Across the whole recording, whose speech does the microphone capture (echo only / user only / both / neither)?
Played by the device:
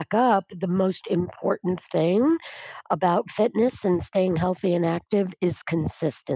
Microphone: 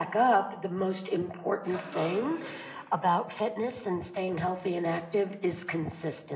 both